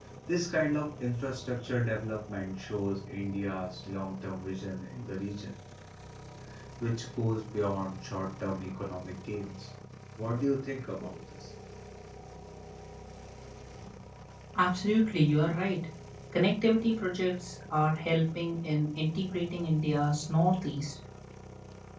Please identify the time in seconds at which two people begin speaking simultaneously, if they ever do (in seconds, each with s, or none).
none